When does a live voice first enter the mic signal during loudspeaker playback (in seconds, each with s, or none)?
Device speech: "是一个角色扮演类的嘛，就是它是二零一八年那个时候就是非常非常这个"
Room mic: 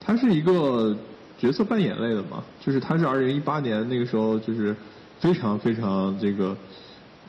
none